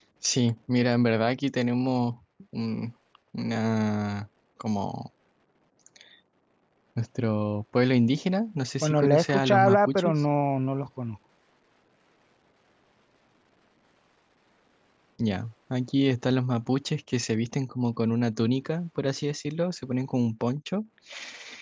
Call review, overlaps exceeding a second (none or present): present